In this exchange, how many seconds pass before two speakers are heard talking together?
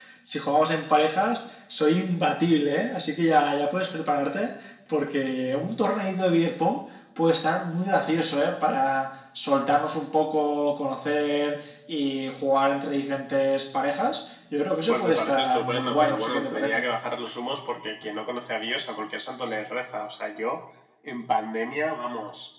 14.9 s

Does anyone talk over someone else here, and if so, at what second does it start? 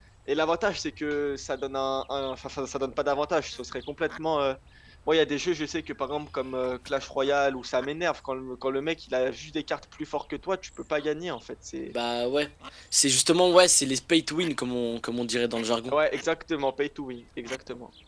none

